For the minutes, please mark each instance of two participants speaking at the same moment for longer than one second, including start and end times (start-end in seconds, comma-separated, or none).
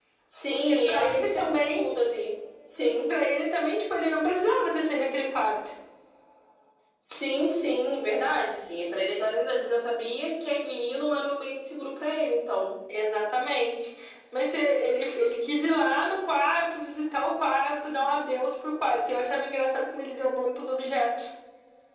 0.5-1.8